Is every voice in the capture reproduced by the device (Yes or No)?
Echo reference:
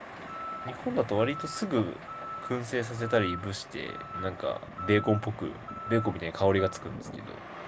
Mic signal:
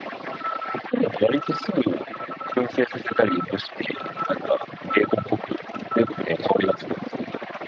Yes